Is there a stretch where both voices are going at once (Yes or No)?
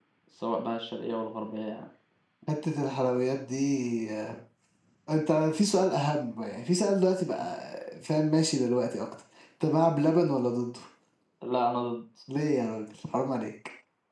No